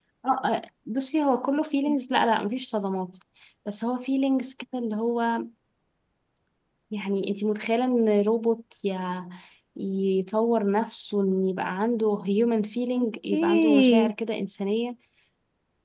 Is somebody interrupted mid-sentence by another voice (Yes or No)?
Yes